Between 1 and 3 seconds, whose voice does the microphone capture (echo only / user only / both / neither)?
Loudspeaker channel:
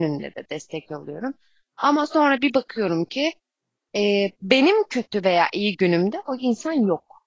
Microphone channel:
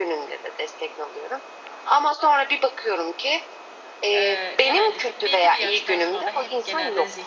echo only